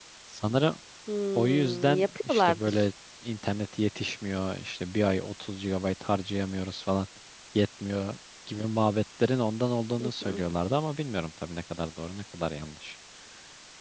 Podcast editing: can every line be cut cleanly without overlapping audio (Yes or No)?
No